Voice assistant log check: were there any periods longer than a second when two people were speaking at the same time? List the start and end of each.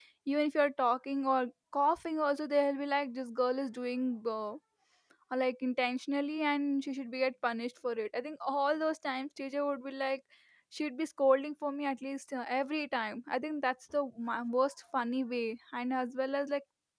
none

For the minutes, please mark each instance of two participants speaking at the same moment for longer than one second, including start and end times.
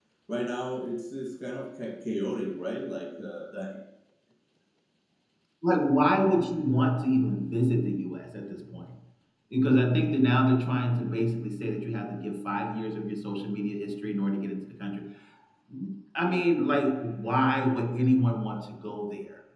none

